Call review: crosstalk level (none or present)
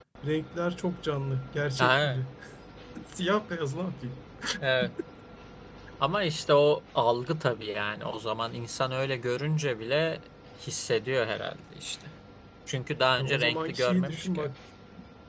present